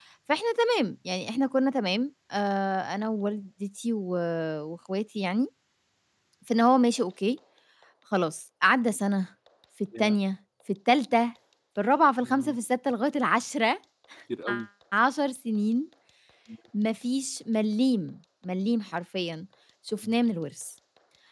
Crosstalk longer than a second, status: none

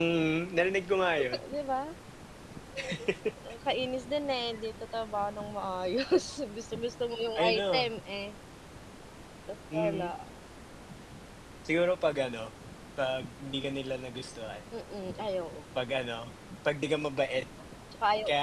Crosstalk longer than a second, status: none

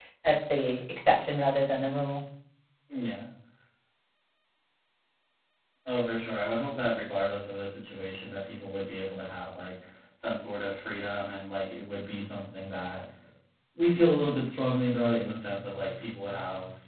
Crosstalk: none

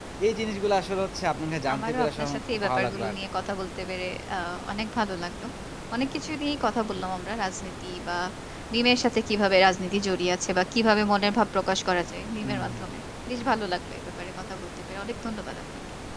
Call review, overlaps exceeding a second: present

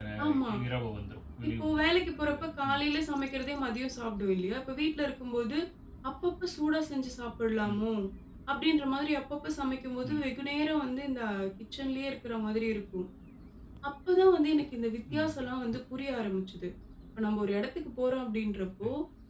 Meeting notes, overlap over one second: present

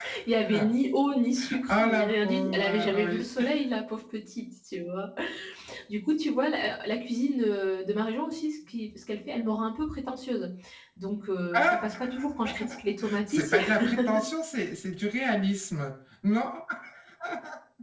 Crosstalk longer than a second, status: present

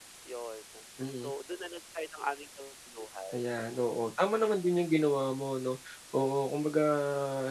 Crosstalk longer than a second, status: none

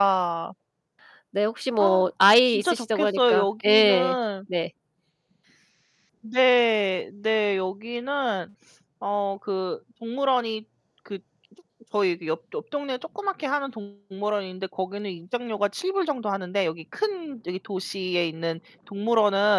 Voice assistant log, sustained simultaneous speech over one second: present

